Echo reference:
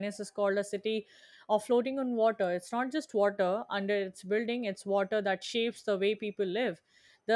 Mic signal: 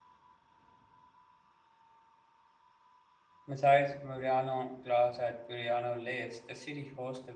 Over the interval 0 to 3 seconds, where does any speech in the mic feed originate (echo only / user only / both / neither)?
neither